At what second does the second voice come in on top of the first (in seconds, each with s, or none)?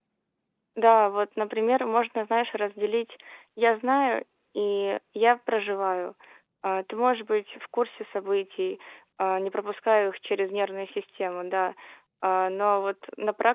none